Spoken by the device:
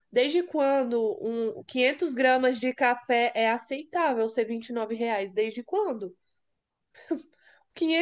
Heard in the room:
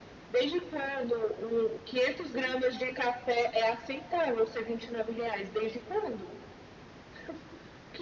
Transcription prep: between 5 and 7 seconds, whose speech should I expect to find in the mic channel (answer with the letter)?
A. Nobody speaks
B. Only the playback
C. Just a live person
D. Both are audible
B